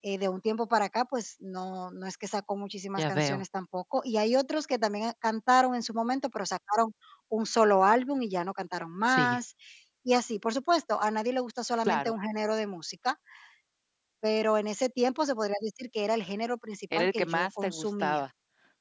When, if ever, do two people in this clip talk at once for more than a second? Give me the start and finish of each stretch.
17.0-18.2

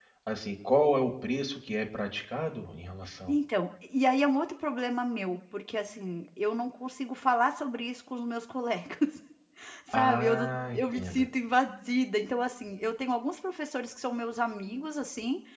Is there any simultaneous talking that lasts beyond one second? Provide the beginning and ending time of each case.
9.9-11.2

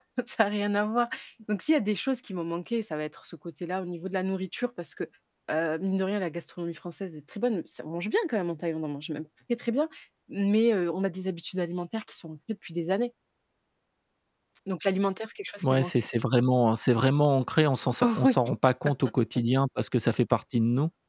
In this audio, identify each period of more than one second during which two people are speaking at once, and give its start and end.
none

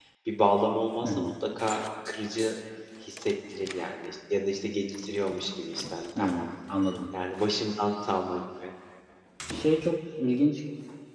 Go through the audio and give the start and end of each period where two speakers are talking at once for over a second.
none

